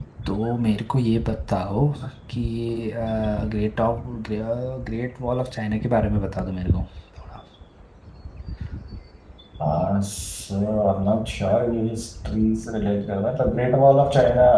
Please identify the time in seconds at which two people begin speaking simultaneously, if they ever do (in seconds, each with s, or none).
none